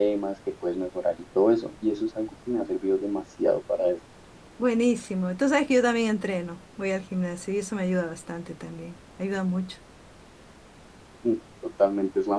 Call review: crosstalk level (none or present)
none